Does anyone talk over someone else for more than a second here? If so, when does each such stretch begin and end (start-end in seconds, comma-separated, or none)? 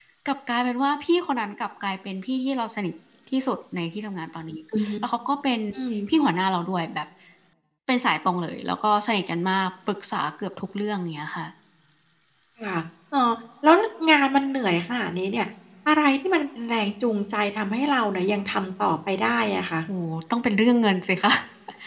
none